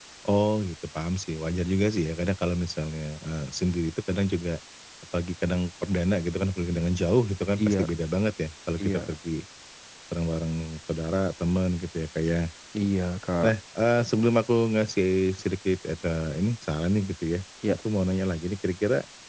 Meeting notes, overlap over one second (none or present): none